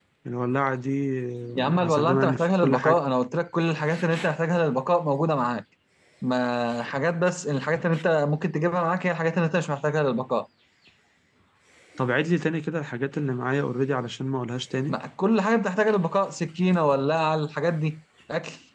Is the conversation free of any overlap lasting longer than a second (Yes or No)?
No